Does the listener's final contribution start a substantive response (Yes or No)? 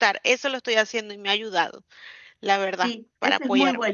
Yes